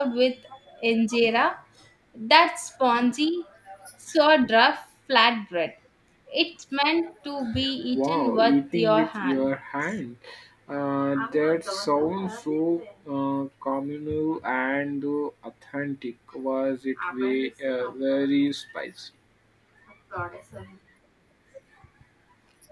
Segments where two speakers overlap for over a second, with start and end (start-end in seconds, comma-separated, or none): 7.9-9.5